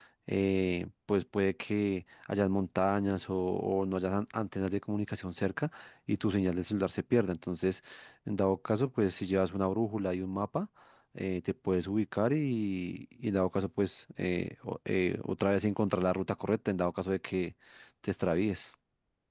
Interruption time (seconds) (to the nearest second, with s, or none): none